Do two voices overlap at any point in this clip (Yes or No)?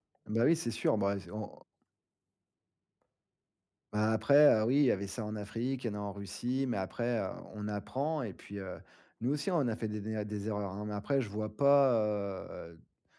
No